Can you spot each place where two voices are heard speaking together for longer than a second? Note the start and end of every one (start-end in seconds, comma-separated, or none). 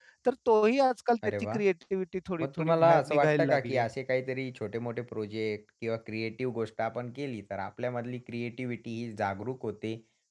2.4-3.9